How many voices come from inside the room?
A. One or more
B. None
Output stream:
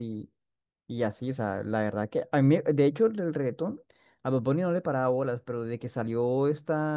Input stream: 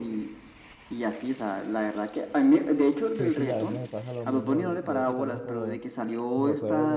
A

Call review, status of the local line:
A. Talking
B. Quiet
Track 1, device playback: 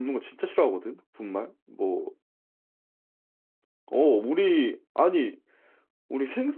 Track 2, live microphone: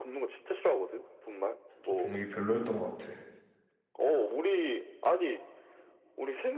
A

